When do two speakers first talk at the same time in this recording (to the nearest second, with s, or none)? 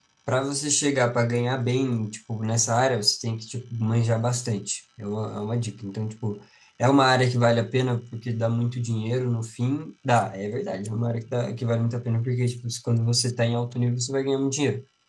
none